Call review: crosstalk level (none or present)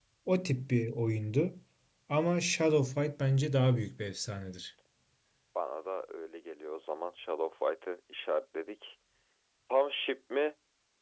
none